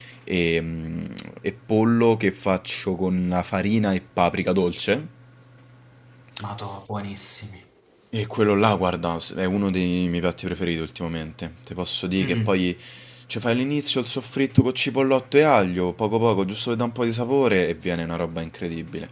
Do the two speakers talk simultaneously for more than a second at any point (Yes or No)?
No